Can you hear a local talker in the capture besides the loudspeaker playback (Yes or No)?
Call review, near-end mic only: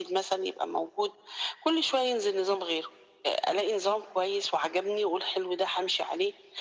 No